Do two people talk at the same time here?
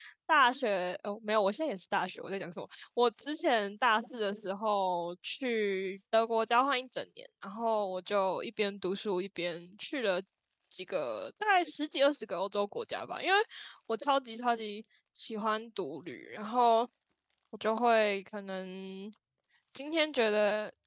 No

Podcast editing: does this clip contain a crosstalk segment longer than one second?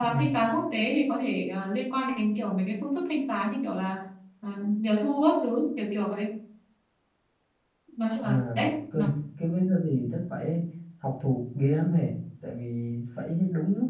No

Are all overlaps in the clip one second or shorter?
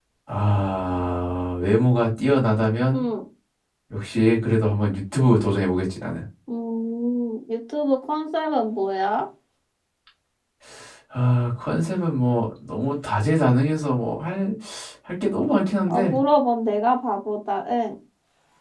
Yes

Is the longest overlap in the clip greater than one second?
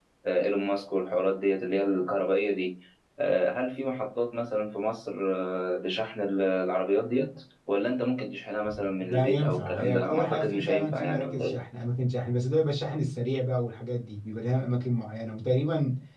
Yes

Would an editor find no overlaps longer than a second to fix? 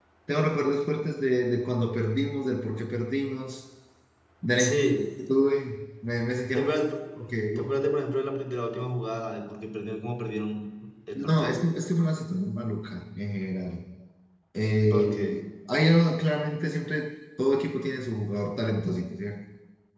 Yes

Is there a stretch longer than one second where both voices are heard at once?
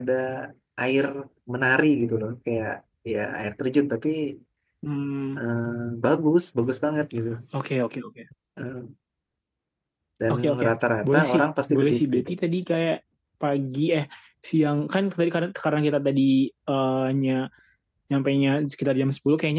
Yes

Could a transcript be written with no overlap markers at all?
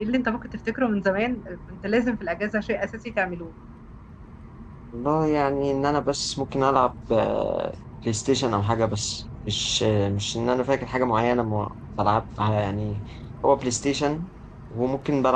Yes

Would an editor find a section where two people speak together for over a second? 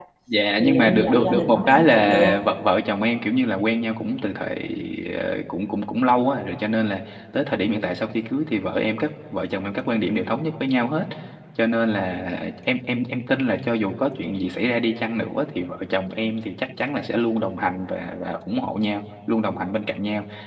Yes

